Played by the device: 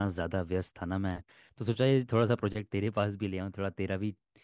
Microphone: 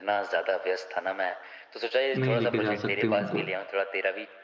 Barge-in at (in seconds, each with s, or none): 2.2 s